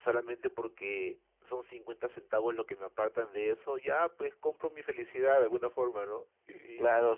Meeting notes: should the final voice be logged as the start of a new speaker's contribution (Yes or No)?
Yes